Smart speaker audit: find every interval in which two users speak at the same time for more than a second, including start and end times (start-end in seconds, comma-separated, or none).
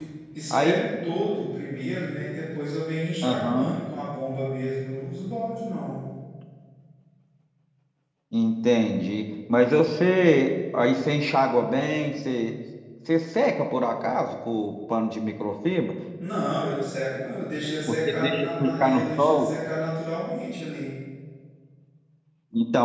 17.9-19.5